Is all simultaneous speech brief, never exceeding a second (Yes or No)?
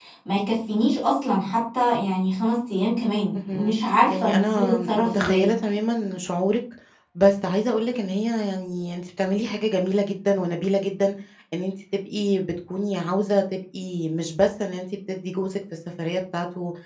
No